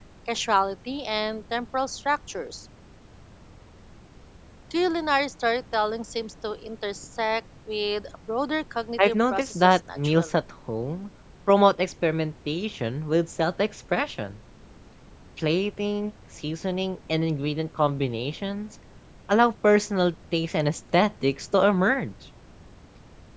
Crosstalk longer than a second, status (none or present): present